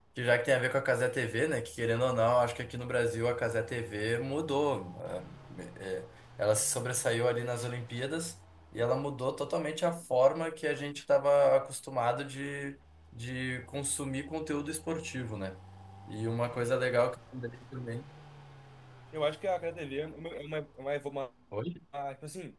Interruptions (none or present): none